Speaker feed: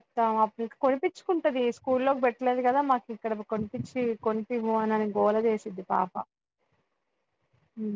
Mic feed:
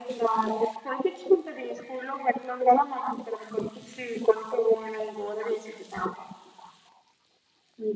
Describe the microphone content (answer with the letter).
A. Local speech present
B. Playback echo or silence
B